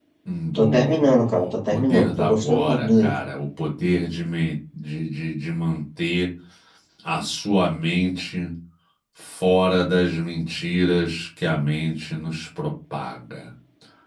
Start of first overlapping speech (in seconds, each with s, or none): 0.6 s